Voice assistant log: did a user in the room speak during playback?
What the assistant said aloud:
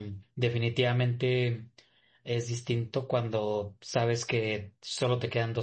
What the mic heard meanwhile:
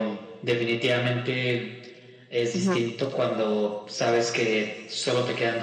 Yes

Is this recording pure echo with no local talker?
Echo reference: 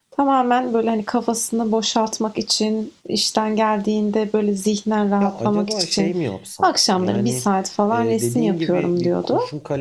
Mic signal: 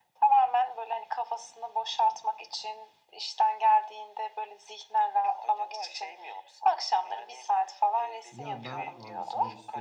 No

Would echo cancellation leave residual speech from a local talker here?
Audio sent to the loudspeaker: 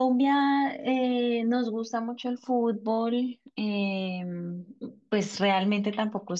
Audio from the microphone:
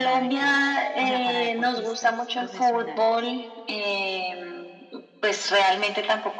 Yes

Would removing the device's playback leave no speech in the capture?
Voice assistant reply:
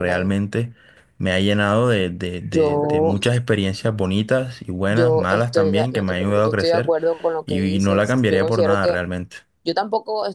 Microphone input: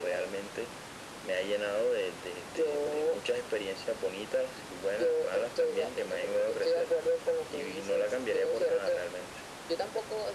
Yes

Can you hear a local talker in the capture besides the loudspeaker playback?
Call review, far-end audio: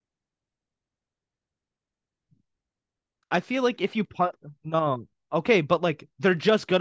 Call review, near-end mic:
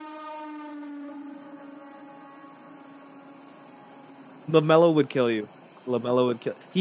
Yes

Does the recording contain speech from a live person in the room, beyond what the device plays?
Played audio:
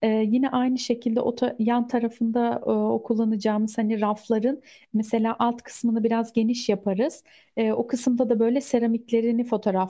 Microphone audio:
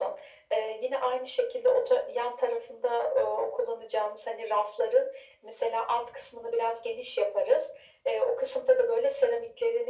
No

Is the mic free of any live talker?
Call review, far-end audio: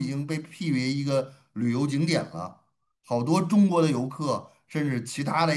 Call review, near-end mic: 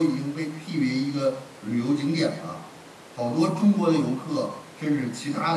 Yes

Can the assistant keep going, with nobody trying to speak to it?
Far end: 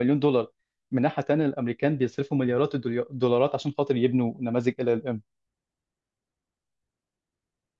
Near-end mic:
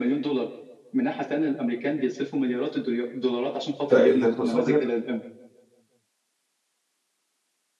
No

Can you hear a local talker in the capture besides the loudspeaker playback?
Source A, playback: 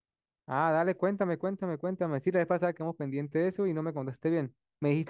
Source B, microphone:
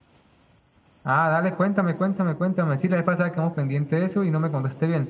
No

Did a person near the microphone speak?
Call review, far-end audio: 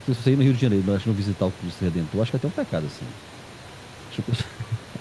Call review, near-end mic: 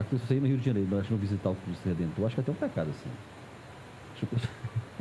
No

